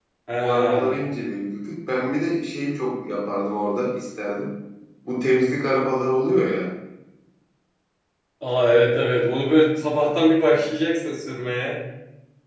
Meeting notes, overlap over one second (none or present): none